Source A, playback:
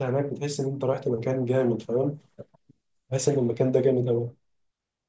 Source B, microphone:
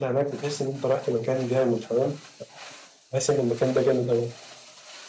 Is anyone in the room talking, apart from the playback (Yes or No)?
No